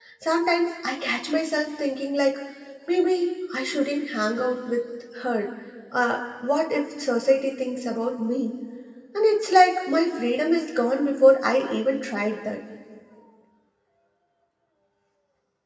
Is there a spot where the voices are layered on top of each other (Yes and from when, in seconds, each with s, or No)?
No